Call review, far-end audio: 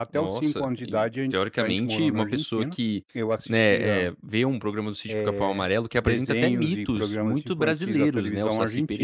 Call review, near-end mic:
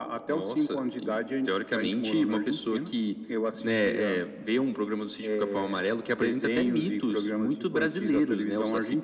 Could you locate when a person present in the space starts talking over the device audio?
none

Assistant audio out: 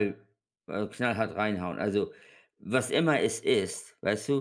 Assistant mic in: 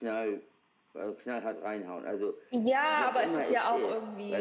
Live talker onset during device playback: 2.5 s

